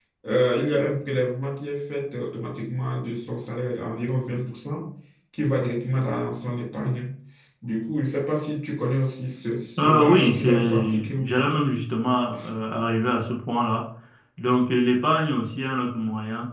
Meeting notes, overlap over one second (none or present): present